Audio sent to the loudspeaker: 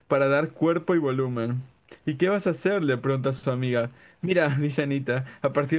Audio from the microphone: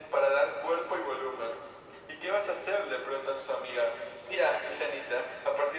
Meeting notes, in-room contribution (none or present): none